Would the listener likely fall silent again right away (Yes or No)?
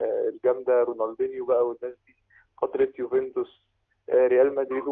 Yes